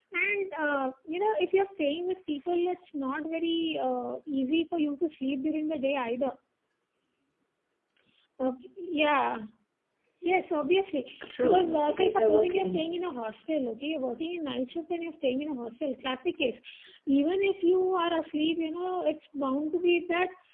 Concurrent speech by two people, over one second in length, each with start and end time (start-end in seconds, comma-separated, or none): 11.3-12.9